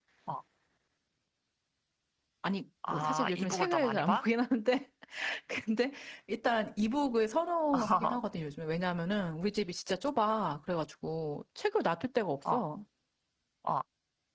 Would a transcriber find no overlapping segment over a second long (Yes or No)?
No